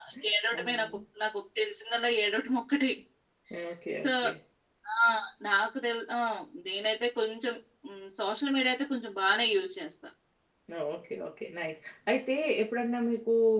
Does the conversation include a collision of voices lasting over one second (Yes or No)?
No